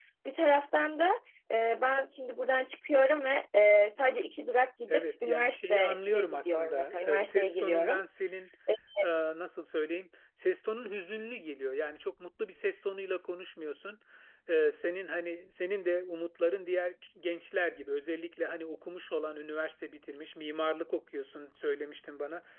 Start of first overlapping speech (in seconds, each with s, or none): 4.9 s